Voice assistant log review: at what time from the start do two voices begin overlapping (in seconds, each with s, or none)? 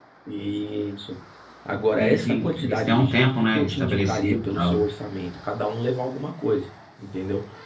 2.0 s